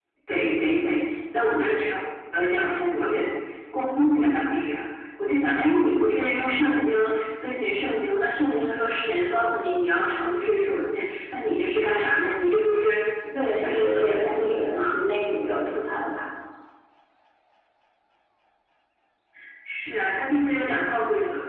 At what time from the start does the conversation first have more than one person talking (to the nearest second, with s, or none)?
13 s